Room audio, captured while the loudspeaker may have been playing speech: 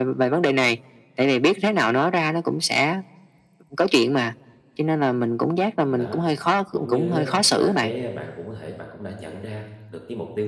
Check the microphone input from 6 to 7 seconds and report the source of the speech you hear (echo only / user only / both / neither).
both